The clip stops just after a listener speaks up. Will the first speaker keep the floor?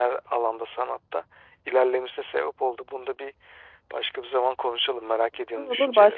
No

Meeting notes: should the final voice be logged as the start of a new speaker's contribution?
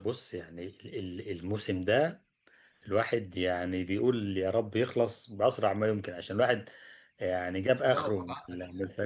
No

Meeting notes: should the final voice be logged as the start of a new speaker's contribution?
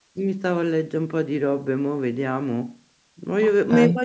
No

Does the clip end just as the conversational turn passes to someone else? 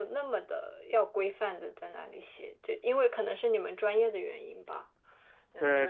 Yes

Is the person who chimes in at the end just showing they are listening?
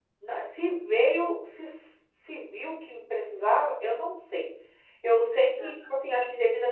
Yes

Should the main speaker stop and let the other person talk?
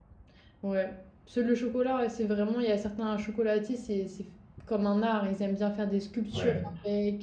No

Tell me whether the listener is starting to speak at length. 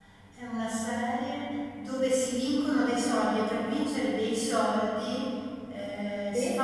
No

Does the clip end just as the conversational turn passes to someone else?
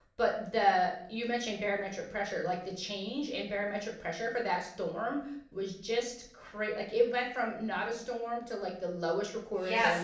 Yes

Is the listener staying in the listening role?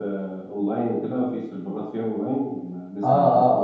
No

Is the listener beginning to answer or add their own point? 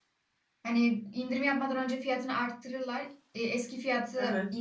No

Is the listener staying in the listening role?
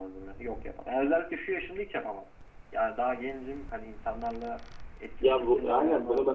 No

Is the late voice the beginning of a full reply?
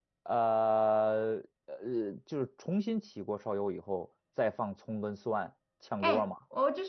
Yes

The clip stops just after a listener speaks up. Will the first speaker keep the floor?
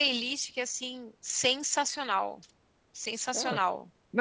No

